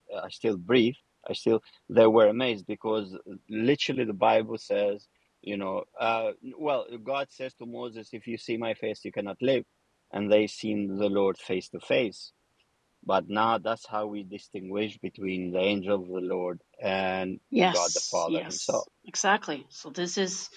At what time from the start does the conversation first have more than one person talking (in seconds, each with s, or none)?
17.5 s